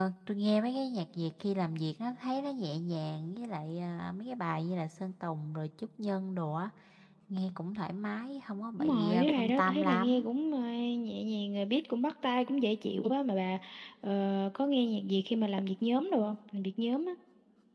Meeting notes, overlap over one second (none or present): present